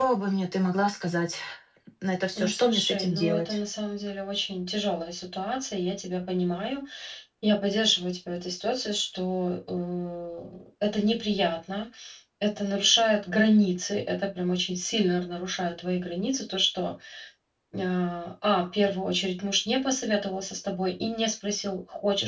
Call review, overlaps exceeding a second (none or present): present